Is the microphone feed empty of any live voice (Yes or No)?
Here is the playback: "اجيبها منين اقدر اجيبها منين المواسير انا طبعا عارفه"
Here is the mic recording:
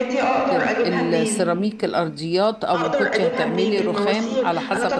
No